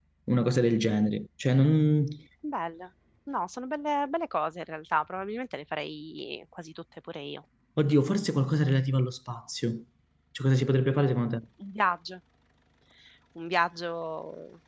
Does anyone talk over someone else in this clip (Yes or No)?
No